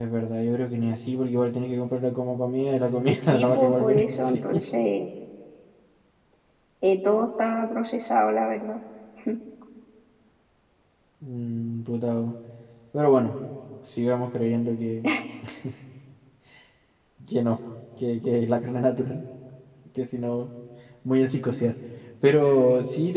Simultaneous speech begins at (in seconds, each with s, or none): 3.0 s